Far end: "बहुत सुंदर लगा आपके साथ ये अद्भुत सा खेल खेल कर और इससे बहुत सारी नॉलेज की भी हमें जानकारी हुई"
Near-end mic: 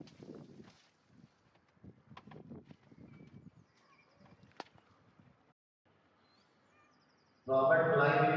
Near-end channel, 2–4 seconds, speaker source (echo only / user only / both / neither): neither